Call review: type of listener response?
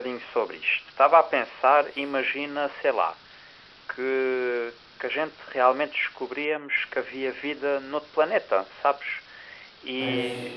listening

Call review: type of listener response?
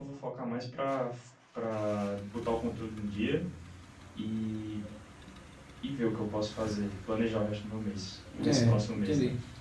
taking over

